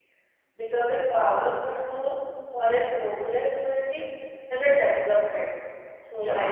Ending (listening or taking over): listening